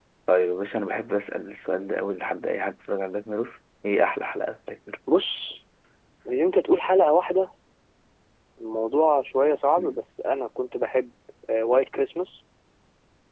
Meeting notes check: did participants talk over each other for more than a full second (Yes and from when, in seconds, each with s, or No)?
No